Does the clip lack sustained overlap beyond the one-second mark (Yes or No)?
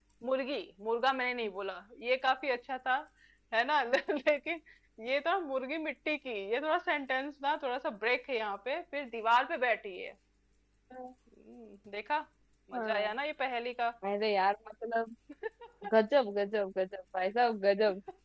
Yes